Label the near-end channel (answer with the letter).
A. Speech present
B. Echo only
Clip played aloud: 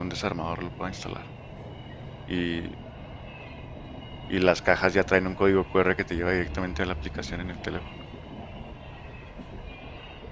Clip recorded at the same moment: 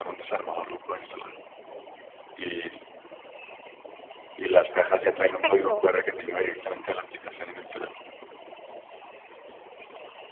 A